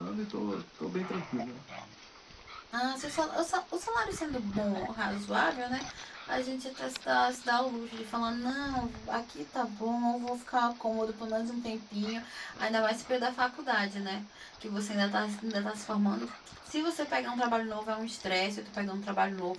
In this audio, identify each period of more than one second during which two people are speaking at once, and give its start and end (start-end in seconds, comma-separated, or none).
none